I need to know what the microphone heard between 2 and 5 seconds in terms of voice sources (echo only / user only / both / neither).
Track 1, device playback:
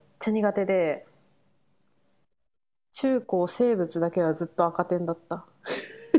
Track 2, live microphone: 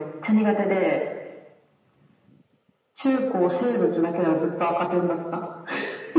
echo only